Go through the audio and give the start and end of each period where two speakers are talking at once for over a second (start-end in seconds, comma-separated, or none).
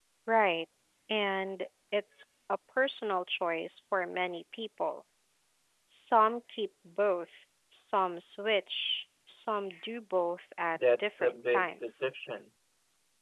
10.8-12.1